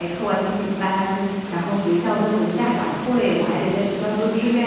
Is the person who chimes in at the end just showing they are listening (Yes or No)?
Yes